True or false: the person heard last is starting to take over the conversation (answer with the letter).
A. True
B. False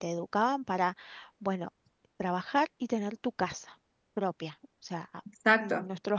B